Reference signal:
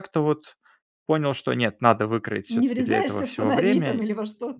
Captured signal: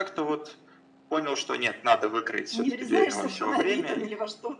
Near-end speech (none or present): present